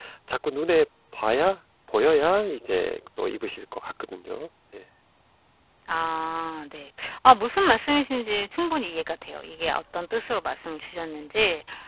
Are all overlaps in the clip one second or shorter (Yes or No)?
Yes